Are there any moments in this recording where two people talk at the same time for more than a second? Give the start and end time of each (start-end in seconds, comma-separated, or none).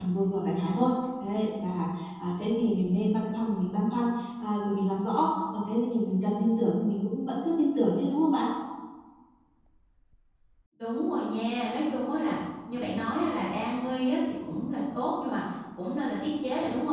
none